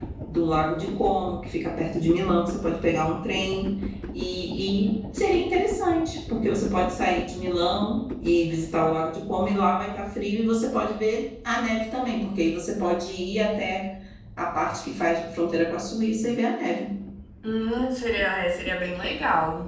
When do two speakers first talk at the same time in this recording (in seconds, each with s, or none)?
none